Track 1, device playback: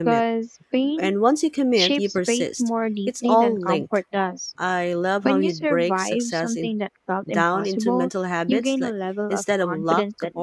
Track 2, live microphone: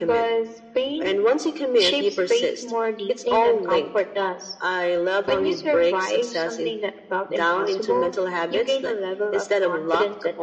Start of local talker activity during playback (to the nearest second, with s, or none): none